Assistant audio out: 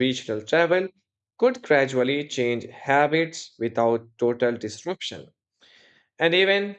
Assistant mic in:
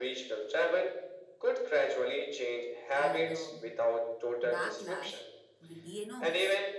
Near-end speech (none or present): present